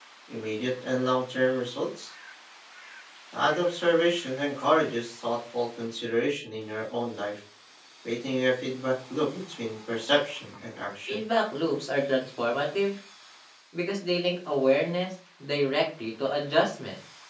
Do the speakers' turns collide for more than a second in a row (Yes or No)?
No